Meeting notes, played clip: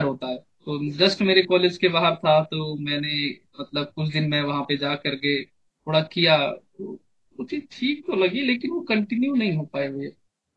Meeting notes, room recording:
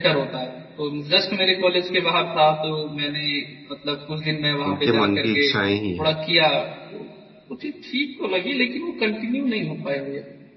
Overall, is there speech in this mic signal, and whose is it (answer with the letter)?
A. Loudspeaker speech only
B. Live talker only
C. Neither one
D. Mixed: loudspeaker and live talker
D